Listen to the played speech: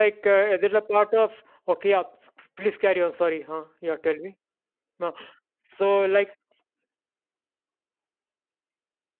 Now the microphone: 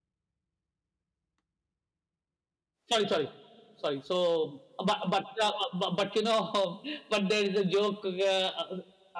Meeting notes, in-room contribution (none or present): present